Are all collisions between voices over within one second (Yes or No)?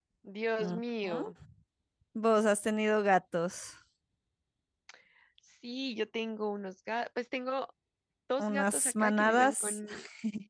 No